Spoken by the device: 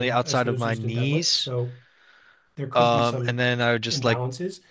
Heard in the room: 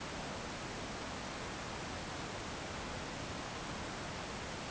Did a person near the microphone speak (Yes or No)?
No